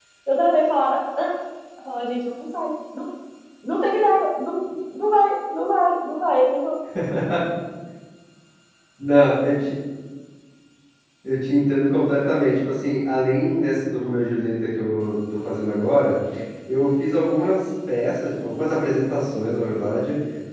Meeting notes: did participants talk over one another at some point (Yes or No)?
No